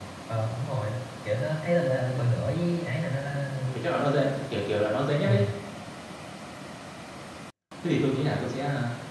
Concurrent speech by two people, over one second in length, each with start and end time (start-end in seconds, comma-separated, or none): none